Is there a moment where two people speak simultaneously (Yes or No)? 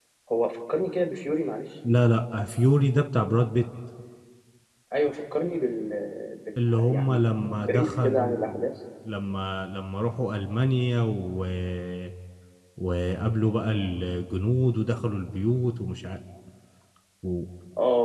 Yes